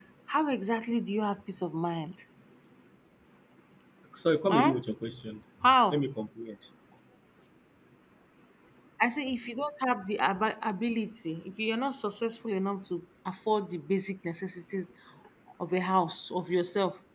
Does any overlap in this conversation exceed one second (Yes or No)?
No